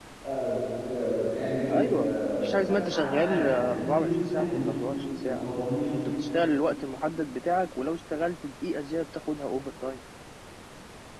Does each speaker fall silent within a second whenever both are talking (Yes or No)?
No